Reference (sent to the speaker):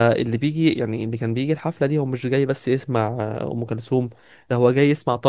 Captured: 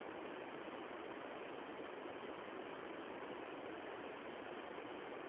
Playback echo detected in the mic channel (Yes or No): No